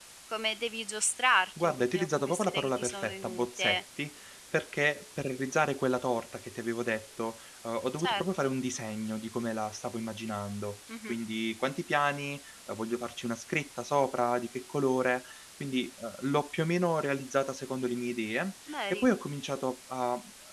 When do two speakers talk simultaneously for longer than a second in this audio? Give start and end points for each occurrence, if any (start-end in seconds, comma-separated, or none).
1.6-3.8